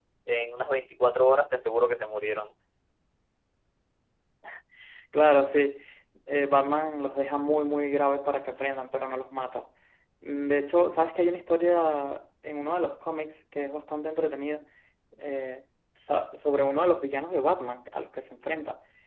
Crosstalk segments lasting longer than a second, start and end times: none

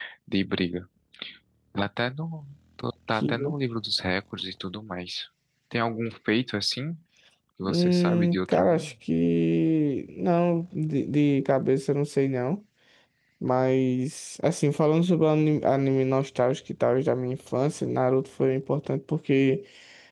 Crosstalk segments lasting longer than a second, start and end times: 7.7-8.9

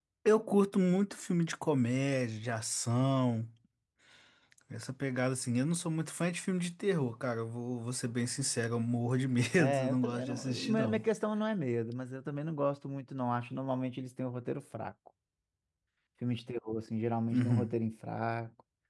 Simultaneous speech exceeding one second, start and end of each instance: 9.6-11.0

